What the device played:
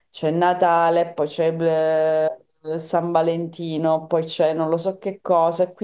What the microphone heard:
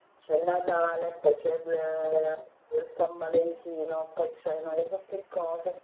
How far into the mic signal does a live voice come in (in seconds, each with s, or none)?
none